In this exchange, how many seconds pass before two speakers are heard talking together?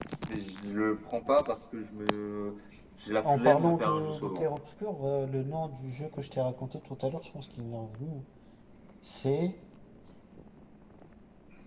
3.2 s

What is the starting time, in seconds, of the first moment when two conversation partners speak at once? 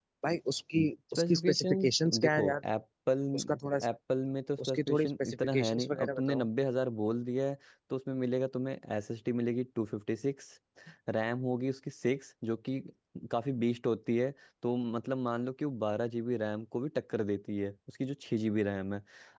1.2 s

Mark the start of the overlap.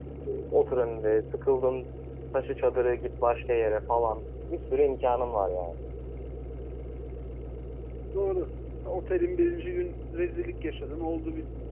none

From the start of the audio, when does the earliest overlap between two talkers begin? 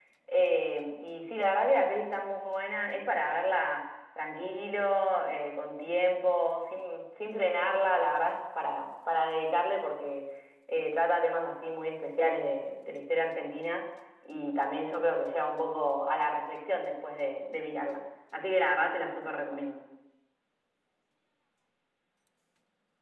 none

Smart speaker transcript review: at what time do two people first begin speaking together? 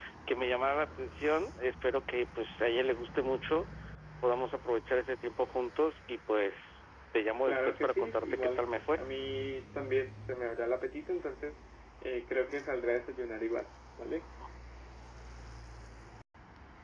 7.5 s

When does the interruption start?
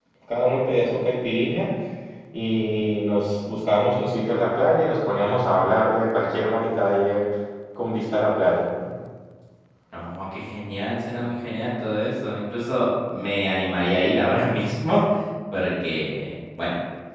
none

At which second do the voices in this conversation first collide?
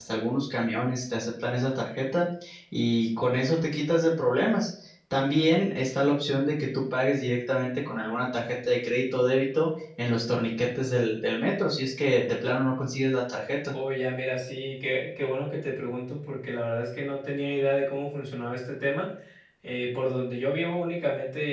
none

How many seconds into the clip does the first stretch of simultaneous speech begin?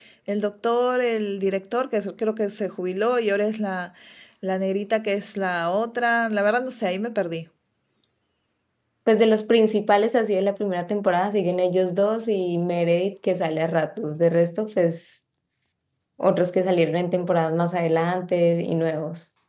none

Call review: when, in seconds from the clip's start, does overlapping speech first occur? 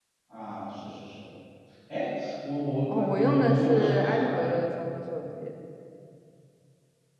2.9 s

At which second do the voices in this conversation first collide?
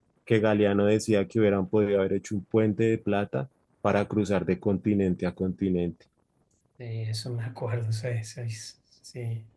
none

